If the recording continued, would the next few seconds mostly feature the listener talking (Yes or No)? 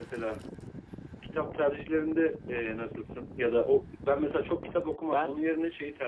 No